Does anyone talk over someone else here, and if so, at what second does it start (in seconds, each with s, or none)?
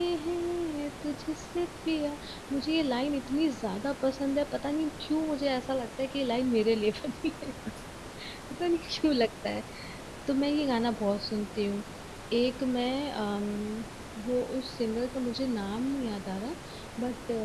none